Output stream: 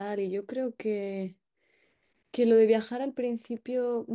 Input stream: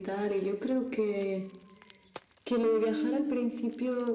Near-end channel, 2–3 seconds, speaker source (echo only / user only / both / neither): both